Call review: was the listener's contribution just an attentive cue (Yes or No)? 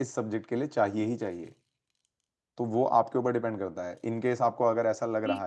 No